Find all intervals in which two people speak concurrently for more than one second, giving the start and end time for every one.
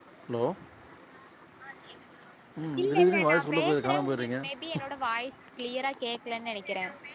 2.8-4.4

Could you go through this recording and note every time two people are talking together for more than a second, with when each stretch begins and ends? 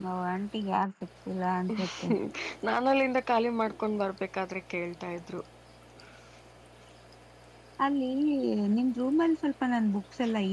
none

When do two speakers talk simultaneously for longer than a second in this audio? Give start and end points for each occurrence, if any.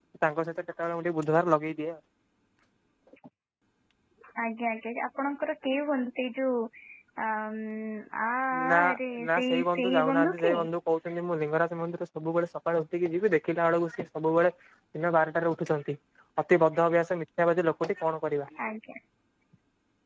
9.3-10.5

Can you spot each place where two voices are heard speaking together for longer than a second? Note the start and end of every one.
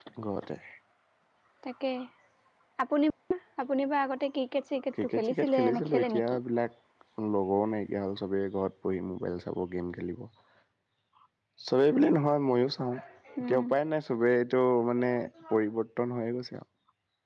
5.0-6.4

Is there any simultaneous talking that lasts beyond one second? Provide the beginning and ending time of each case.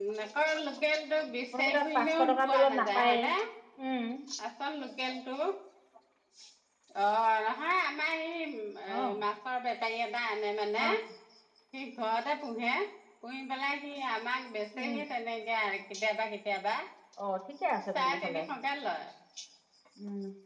1.5-3.2

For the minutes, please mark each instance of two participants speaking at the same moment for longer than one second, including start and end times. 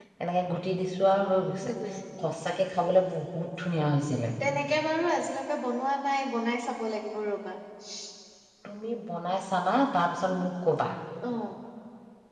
none

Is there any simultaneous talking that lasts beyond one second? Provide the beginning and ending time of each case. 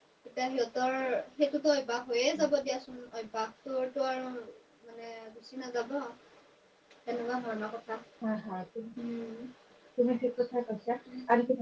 none

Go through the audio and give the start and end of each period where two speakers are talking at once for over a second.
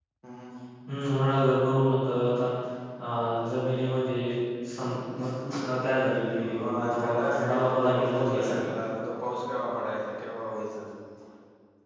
6.5-8.7

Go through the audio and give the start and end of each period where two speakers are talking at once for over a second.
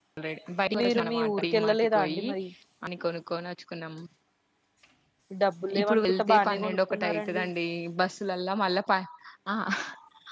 0.8-2.2, 5.8-7.4

